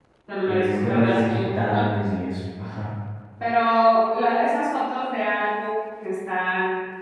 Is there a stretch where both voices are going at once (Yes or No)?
Yes